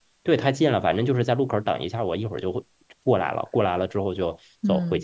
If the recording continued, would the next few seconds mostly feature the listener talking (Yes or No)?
Yes